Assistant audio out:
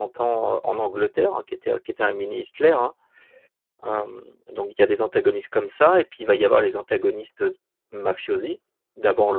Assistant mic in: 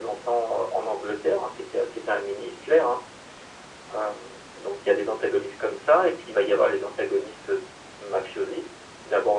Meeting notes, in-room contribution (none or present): none